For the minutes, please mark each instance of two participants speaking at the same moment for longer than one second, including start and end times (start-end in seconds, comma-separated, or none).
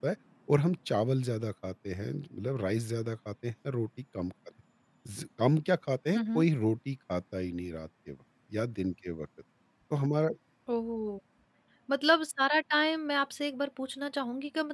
none